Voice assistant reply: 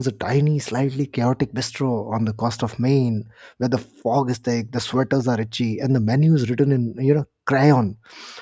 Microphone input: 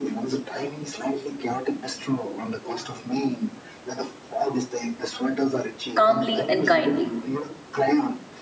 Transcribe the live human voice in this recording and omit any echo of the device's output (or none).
calmly and kindly